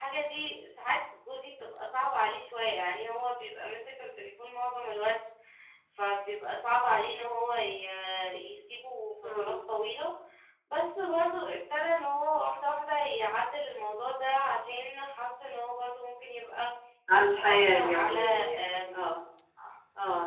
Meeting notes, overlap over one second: present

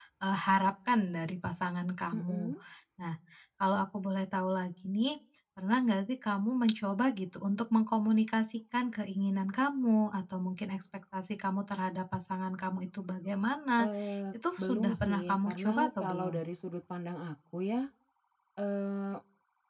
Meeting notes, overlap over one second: present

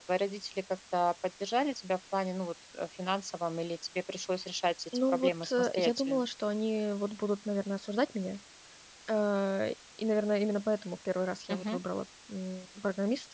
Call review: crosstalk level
present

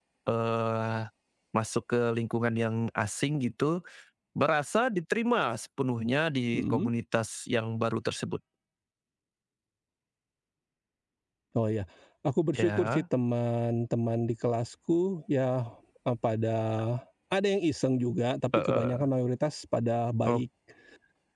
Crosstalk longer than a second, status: none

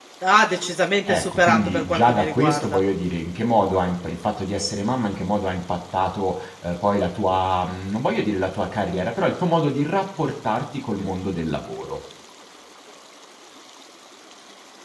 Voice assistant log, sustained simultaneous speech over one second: present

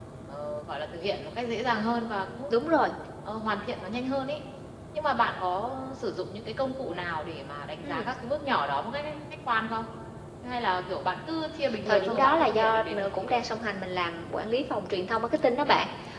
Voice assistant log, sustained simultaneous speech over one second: present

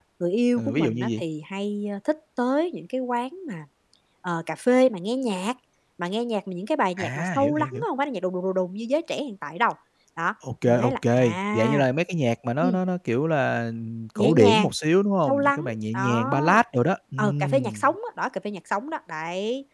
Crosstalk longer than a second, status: present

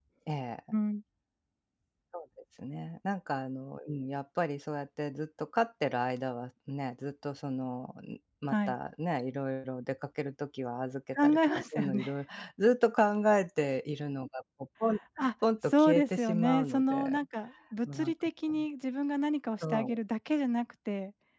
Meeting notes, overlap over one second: present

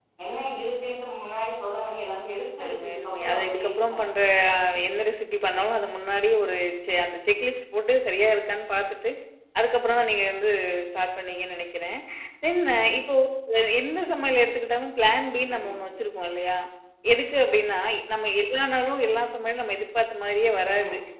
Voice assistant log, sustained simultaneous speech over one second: present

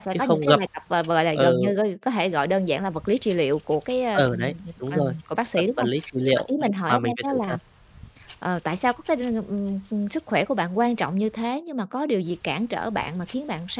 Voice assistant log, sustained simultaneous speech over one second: present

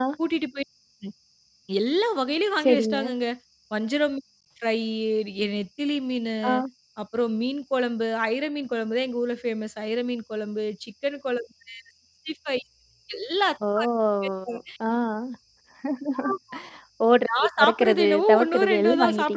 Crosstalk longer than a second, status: present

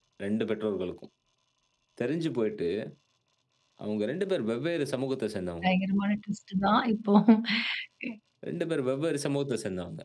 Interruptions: none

